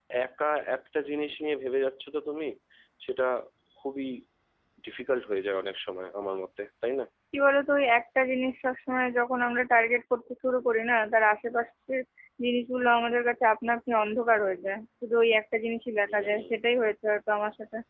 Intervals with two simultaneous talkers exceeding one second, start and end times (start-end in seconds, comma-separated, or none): none